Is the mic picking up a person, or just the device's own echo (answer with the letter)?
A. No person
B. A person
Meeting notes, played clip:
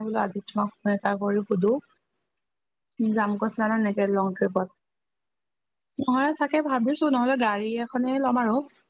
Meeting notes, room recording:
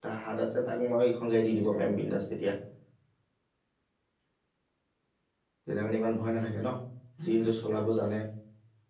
B